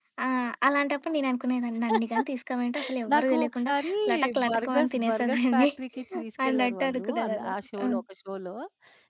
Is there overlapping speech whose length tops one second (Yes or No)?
Yes